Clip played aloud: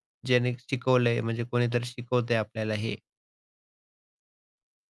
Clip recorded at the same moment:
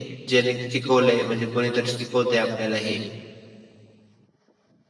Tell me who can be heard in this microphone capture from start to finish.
echo only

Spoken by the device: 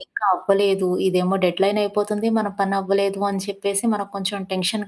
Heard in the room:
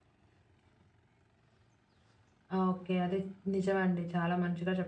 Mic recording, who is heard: user only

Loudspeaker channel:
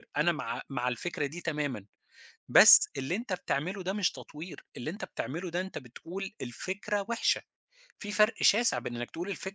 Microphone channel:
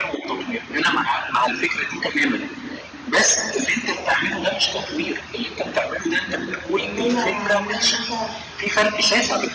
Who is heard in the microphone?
both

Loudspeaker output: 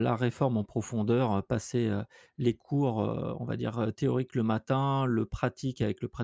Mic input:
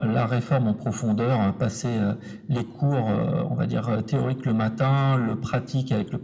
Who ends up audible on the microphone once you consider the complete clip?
echo only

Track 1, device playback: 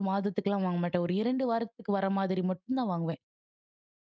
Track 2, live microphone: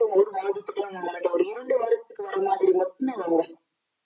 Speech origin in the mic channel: echo only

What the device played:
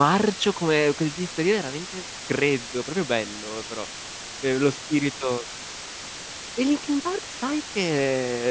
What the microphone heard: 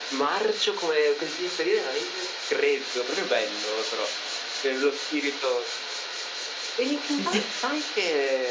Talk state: both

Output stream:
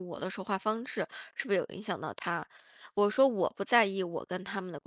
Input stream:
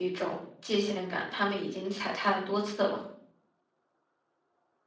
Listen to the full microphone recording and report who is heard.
user only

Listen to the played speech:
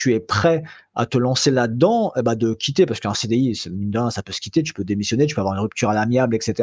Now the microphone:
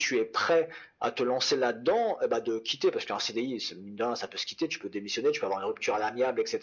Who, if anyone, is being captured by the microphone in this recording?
echo only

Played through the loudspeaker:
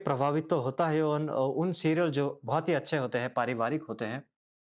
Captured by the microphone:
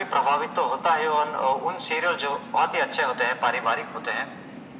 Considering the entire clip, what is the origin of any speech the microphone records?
echo only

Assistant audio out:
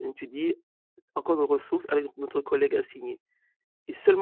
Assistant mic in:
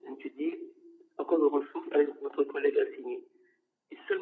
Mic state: echo only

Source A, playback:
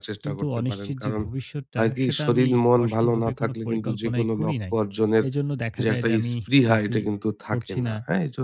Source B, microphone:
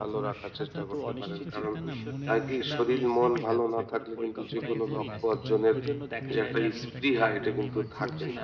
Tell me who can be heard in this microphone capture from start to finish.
both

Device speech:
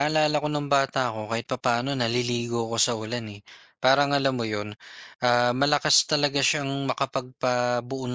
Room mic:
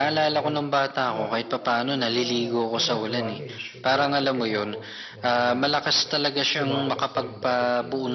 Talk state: both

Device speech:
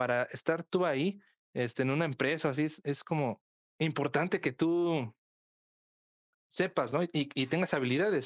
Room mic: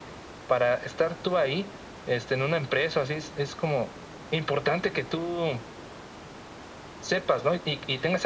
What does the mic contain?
echo only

